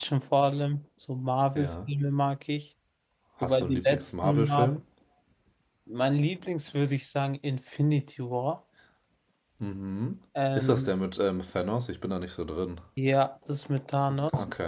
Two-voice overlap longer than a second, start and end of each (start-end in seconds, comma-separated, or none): 3.4-4.8